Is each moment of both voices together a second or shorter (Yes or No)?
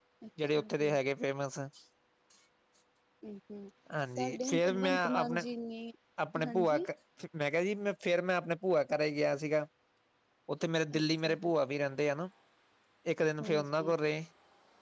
No